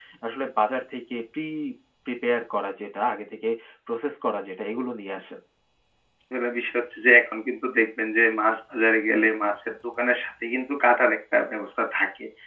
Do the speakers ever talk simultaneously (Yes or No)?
No